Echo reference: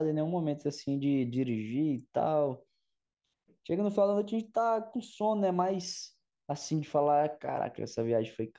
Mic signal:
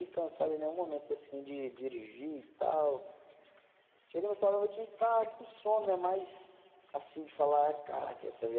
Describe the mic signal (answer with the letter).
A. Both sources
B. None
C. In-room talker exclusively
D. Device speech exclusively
D